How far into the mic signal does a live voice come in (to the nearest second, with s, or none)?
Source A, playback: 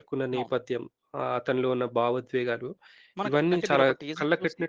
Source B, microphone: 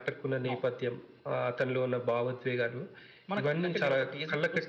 none